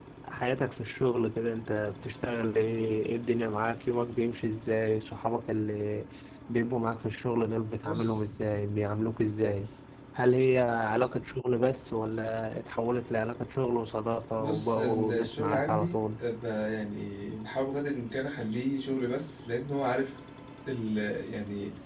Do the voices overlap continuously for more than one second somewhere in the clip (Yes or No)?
Yes